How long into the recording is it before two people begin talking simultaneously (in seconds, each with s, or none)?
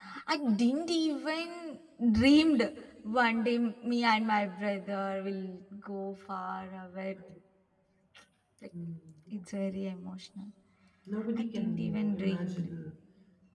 11.4 s